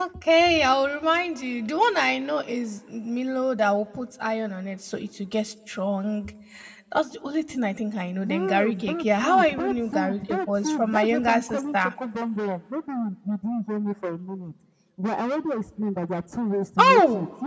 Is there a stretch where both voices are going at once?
Yes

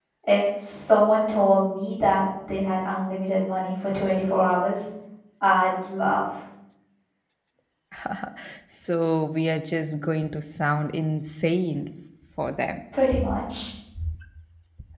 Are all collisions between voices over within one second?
Yes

